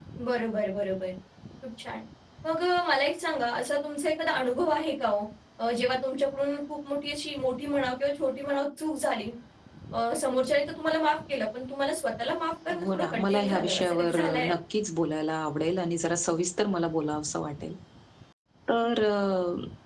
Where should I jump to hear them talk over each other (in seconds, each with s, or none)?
12.7 s